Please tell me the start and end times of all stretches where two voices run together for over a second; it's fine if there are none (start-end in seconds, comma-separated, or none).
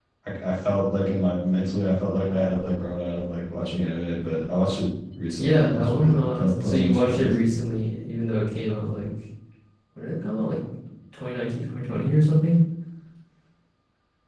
5.4-7.3